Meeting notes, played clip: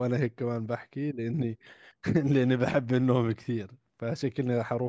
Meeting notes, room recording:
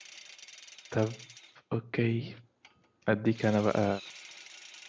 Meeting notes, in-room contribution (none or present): present